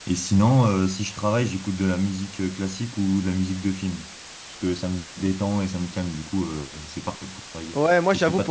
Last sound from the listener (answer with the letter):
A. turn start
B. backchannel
A